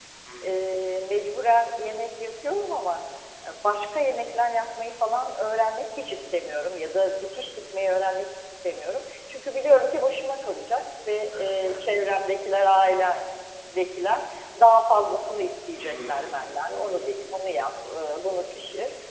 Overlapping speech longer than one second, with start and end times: 15.8-17.1

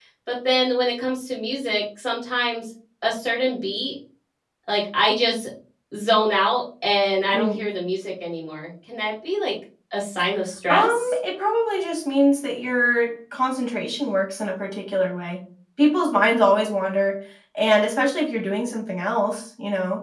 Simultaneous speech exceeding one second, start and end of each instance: none

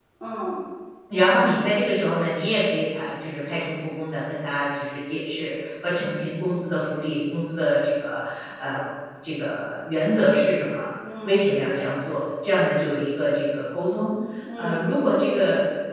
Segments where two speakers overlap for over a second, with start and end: none

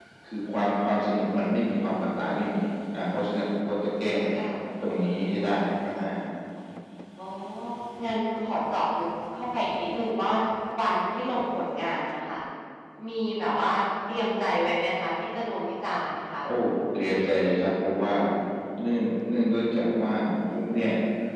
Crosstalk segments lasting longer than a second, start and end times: none

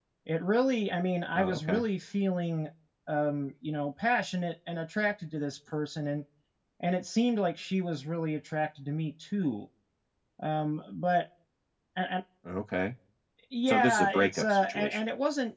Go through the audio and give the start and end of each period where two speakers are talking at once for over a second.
13.7-15.0

